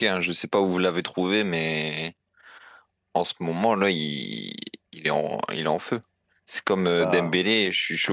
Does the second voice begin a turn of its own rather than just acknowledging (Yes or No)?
No